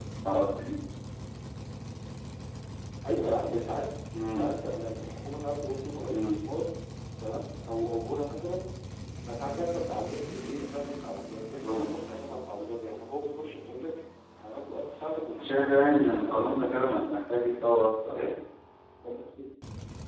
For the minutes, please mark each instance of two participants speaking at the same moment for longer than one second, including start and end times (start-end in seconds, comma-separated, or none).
15.4-17.1